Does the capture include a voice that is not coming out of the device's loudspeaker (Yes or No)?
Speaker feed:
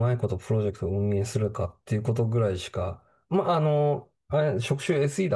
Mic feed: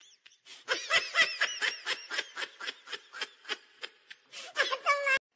No